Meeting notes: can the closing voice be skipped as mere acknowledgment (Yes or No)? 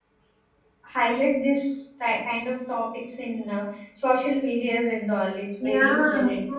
No